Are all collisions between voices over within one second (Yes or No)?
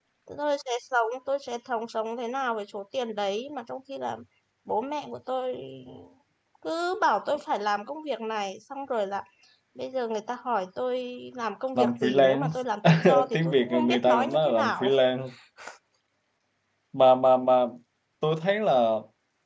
No